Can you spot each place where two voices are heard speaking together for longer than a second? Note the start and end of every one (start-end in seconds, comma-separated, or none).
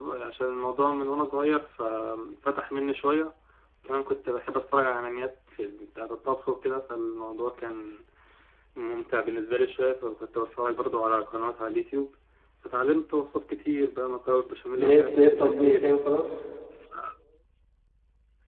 14.8-16.0